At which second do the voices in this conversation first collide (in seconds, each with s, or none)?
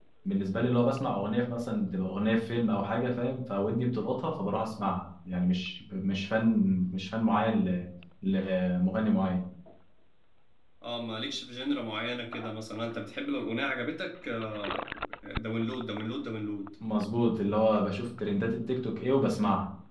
none